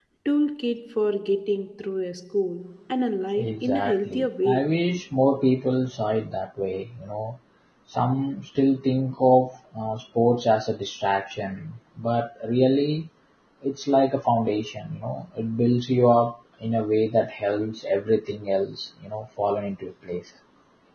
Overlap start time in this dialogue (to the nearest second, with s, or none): 3 s